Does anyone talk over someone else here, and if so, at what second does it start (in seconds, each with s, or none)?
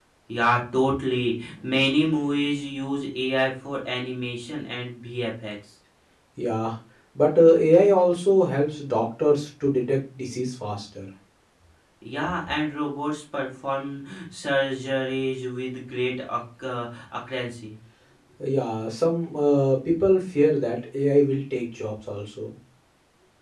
none